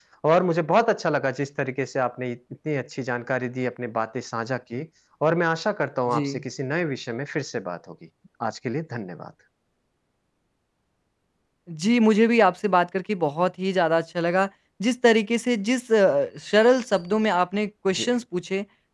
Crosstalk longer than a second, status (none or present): none